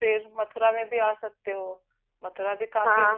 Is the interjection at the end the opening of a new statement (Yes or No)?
Yes